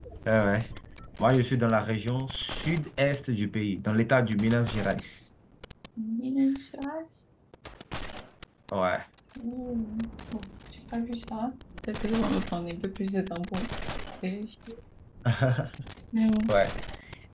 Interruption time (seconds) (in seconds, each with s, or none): none